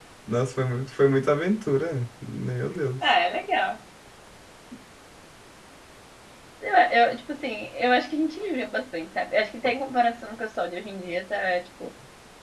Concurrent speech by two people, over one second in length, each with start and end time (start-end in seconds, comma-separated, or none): none